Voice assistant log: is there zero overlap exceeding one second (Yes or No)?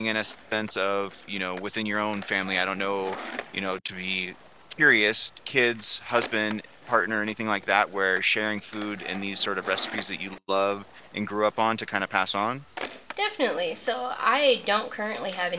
Yes